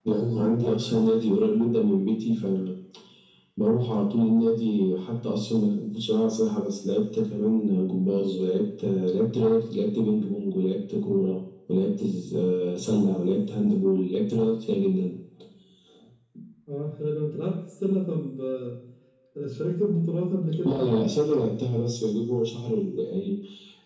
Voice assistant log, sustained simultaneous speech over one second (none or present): none